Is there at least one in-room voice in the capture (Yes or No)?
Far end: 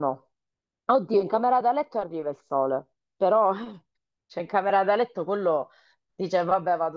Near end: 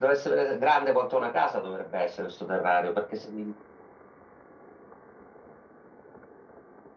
Yes